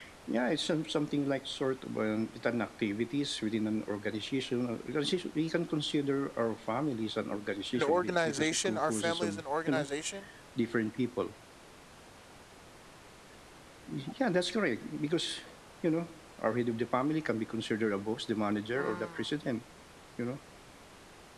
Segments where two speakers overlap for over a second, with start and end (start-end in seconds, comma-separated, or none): 7.8-9.3